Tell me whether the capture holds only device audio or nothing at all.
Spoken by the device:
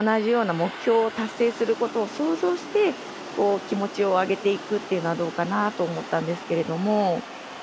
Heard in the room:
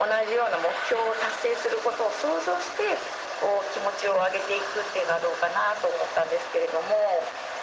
Yes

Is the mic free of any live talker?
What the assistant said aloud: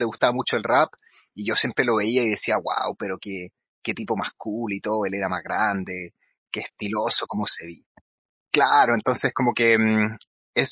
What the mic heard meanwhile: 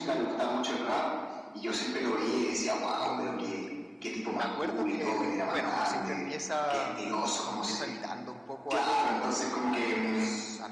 No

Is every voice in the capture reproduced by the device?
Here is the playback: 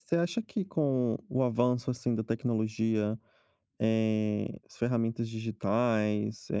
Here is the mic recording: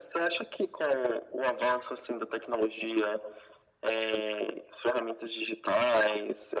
Yes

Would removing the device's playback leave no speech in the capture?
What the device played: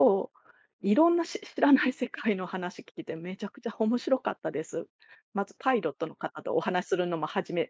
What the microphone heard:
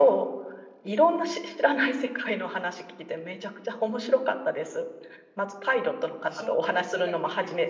No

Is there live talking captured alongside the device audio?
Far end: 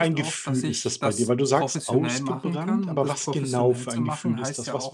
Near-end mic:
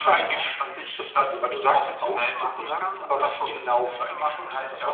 No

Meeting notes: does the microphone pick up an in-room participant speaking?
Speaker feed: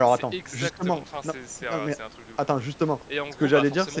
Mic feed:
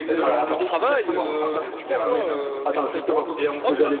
Yes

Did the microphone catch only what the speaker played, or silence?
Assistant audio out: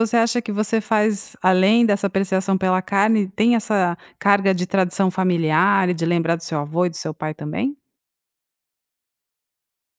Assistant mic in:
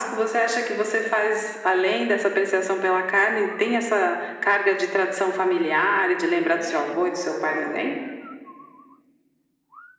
No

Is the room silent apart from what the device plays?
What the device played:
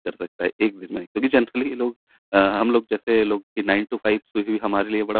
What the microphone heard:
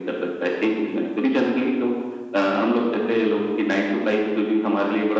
Yes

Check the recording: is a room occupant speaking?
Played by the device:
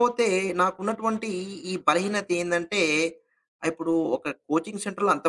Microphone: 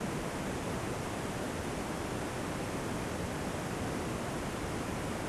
No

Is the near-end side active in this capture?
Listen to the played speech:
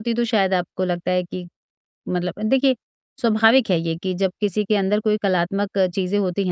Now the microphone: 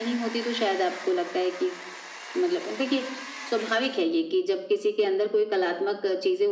No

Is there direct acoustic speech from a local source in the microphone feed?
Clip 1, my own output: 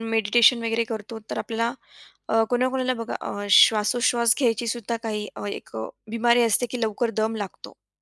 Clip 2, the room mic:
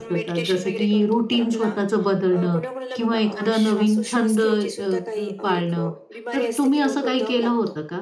Yes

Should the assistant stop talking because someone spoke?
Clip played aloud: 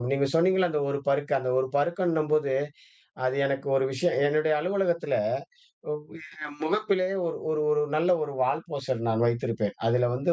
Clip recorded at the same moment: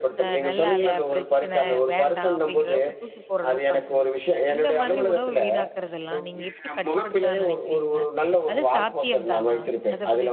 Yes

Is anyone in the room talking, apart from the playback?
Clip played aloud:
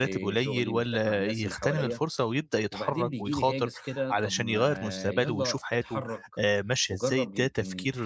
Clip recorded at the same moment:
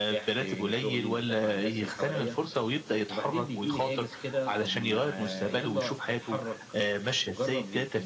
No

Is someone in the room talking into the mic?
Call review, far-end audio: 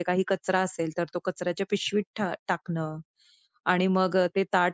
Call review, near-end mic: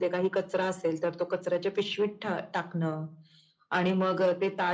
No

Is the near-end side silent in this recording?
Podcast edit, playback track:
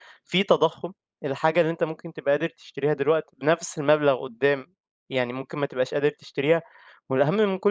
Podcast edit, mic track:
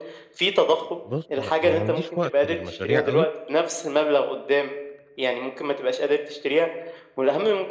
No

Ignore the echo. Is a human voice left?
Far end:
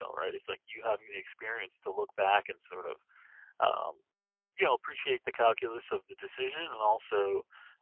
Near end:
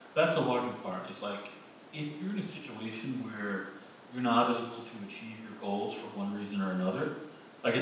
Yes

